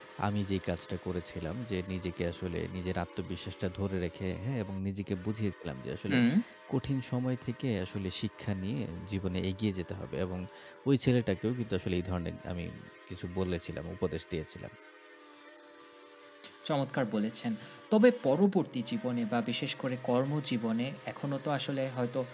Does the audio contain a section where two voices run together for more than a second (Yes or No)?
No